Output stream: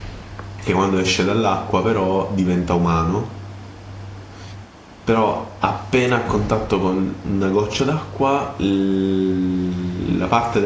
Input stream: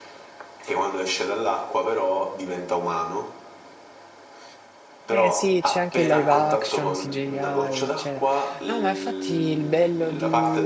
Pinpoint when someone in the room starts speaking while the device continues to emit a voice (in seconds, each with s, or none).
5.1 s